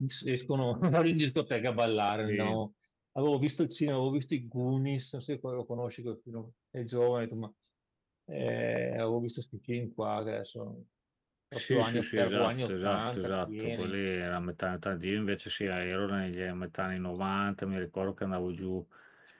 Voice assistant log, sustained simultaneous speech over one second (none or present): present